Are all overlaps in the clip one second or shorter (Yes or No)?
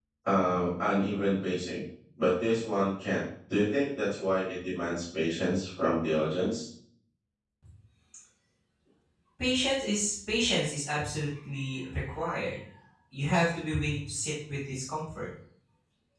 Yes